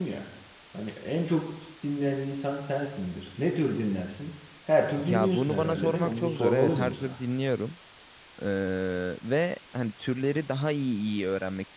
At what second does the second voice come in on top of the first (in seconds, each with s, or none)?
5.0 s